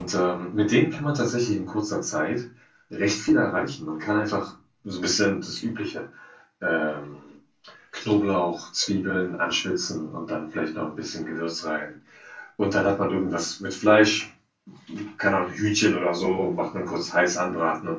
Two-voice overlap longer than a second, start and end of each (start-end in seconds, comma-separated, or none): none